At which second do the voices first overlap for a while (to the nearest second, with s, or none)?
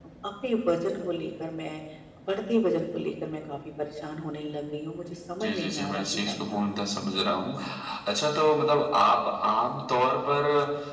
5 s